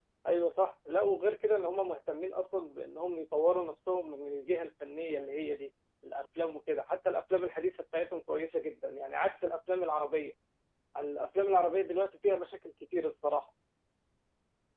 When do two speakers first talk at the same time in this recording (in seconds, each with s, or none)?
none